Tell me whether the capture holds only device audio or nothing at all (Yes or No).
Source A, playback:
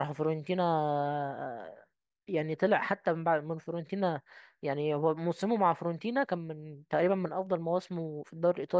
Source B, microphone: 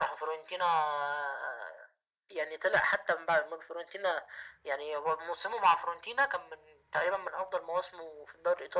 Yes